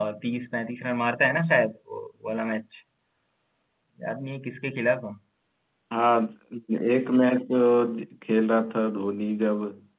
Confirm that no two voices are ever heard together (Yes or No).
Yes